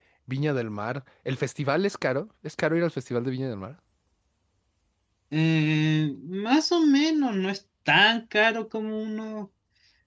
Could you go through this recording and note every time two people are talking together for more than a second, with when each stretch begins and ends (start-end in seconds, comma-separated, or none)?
none